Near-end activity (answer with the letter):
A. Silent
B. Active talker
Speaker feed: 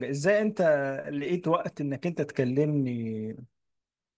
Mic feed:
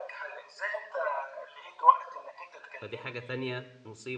B